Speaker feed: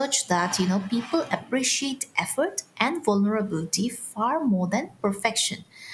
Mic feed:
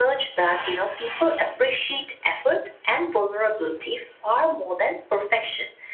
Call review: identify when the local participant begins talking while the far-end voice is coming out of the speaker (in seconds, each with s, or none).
none